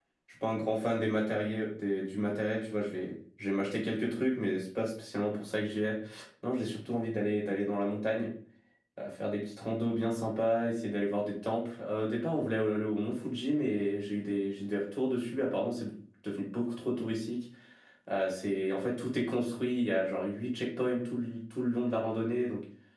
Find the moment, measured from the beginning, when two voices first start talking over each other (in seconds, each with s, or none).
none